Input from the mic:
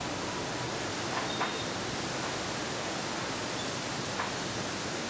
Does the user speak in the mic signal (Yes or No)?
No